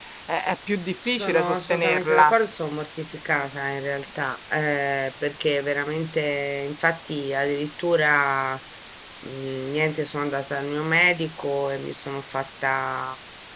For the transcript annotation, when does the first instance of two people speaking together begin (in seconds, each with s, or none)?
1.1 s